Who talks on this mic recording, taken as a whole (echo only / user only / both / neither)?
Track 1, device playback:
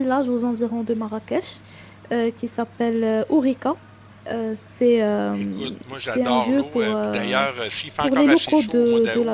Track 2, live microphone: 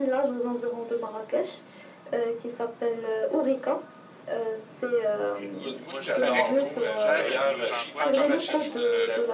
both